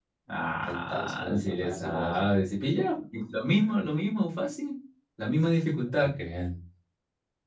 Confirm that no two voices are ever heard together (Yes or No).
No